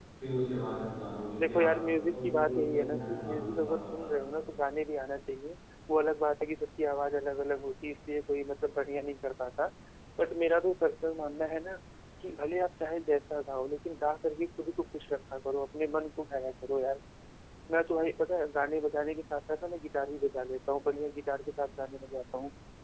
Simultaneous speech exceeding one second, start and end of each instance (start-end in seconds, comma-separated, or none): 1.4-4.1